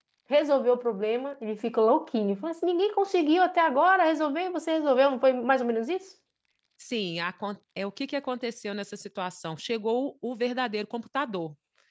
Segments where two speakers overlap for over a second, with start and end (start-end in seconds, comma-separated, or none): none